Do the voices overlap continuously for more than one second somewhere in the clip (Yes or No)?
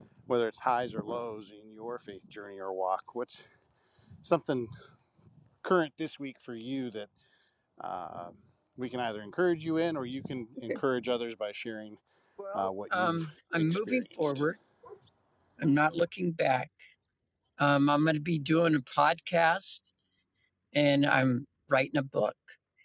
Yes